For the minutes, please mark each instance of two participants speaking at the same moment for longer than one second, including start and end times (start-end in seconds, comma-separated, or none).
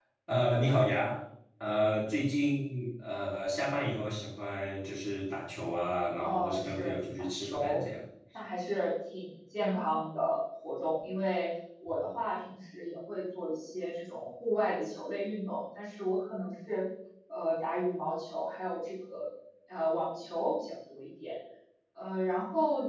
6.2-7.8